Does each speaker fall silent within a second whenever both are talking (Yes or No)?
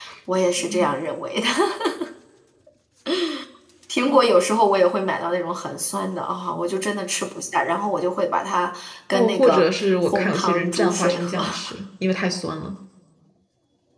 No